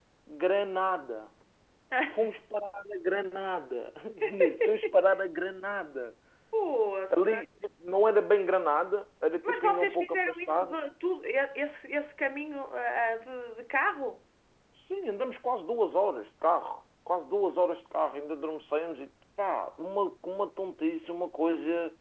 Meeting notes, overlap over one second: present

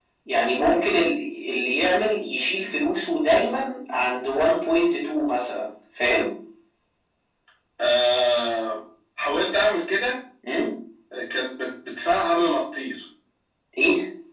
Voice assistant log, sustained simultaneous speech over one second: none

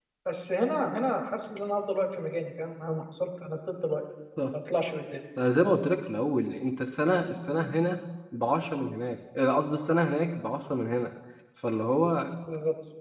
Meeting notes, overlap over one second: none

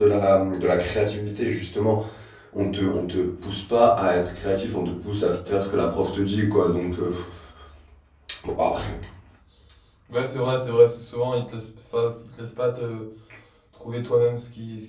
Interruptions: none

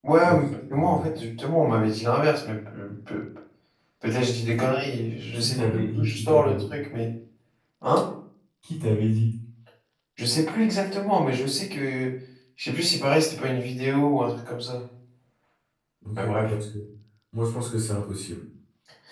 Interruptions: present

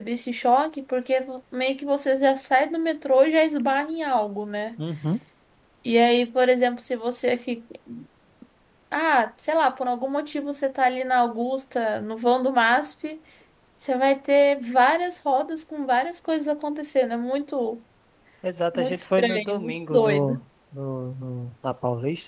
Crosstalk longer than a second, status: present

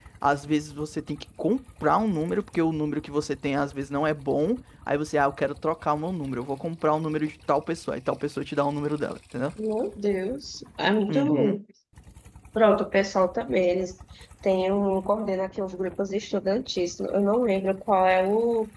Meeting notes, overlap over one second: none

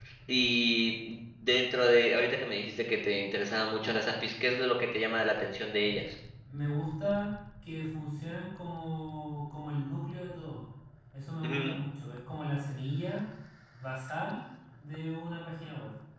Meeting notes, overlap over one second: none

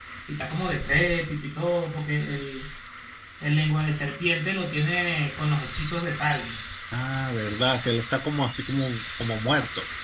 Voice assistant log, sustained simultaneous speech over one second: none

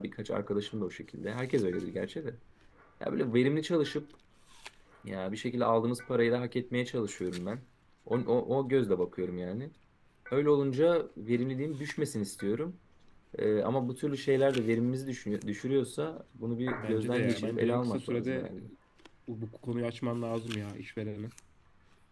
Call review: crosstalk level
present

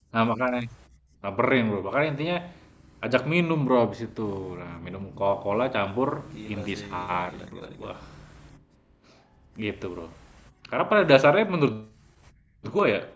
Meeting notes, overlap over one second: present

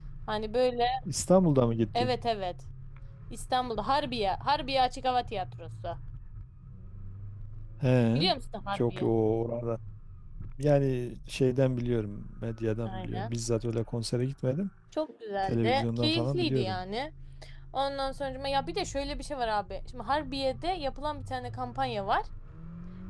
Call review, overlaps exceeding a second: present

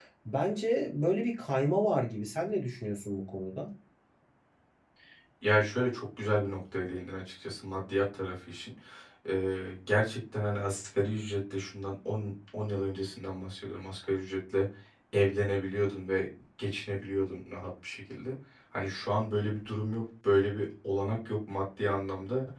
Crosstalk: none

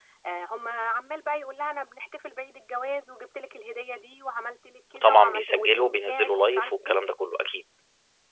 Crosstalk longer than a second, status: present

